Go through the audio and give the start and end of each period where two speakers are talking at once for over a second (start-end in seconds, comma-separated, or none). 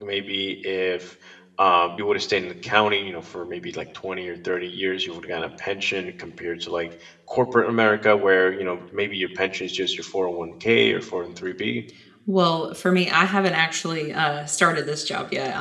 none